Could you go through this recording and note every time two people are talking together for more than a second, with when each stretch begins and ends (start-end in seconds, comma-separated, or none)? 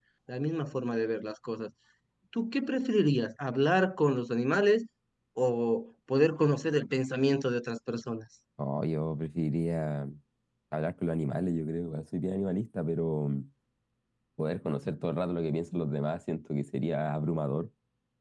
none